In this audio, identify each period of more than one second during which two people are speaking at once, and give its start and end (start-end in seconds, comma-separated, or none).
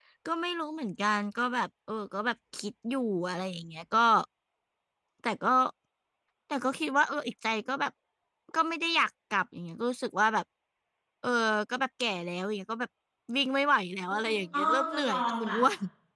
14.1-15.6